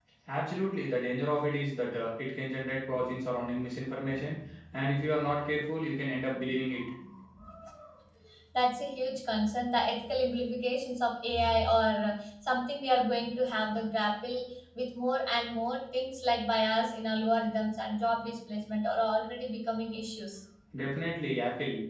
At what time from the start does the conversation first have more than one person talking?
none

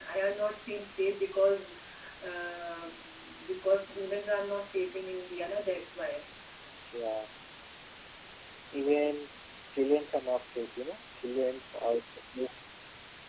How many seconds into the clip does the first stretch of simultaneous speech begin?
none

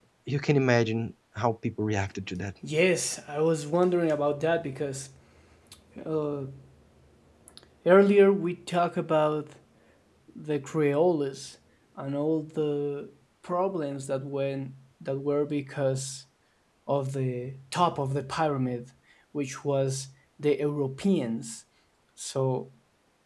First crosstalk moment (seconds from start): none

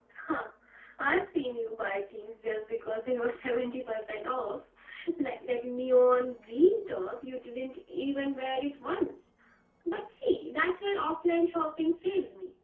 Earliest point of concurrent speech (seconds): none

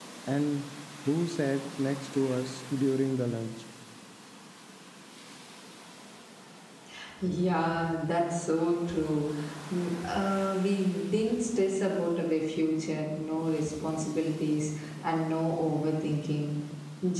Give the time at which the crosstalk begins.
none

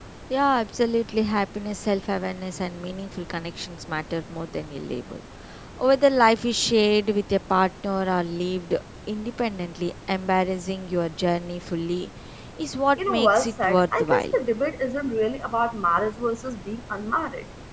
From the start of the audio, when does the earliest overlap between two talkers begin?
13.0 s

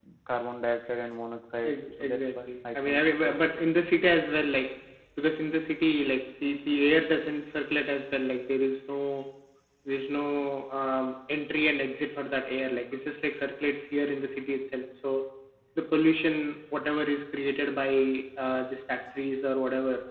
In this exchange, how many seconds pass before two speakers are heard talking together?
1.6 s

